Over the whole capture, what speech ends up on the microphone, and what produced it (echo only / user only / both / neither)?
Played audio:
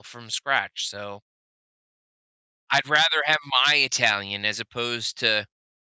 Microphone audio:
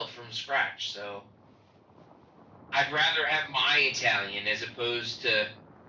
echo only